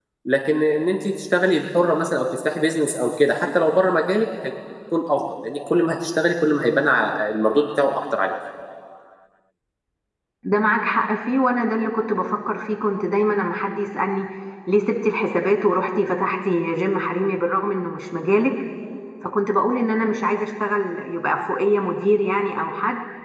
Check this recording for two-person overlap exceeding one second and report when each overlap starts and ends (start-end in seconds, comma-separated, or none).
none